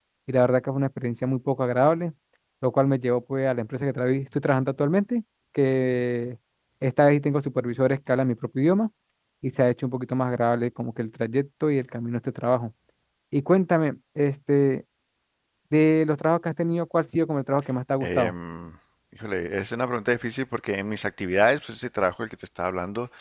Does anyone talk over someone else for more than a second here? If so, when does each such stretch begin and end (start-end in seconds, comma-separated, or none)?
none